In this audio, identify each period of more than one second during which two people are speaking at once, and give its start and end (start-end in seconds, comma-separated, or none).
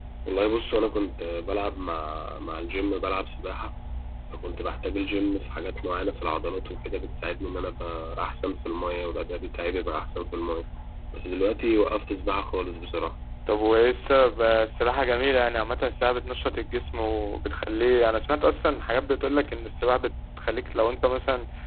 none